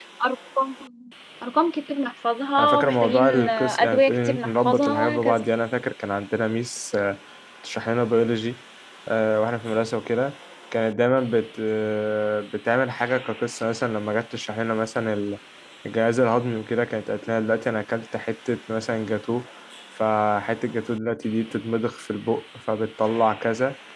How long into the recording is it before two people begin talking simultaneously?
2.6 s

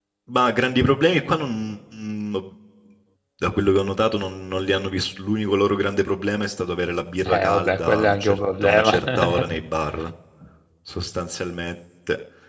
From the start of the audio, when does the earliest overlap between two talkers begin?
7.2 s

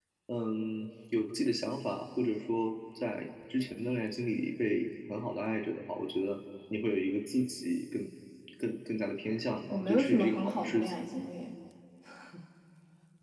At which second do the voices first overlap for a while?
9.7 s

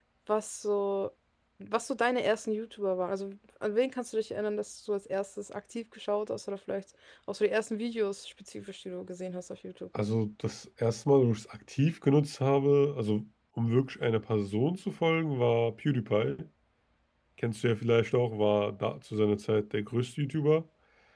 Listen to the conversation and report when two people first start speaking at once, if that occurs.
none

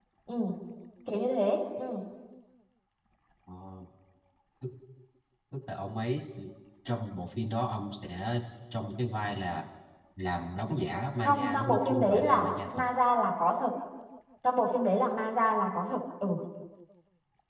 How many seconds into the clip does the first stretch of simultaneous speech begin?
11.2 s

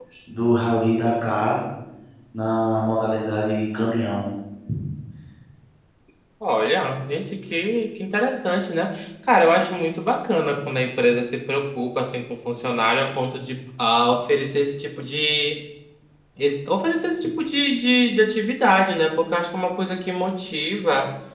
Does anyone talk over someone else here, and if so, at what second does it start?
none

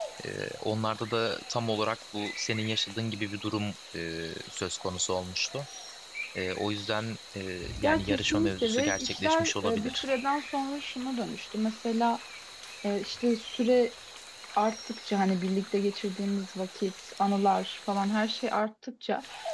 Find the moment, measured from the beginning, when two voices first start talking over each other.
7.8 s

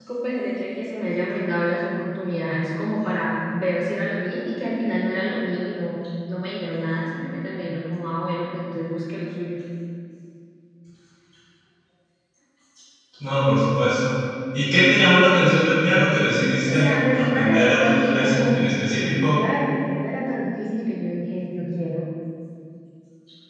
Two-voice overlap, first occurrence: 16.7 s

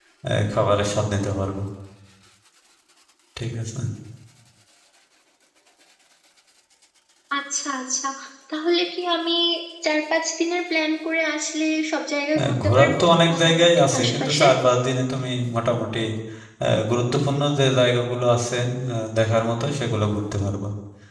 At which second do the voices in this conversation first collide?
12.3 s

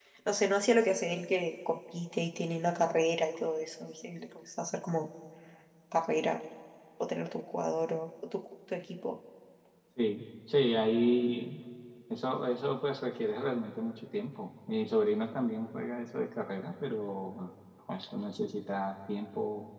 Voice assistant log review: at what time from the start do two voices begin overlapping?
none

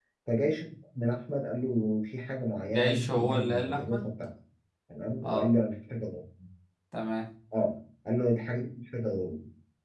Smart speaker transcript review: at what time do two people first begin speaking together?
2.6 s

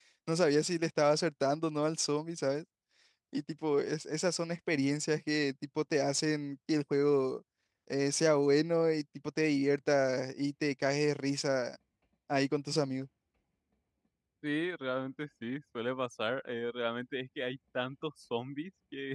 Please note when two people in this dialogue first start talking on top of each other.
none

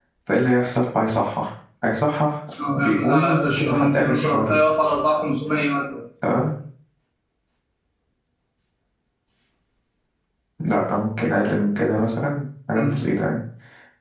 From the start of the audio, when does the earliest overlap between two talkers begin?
2.5 s

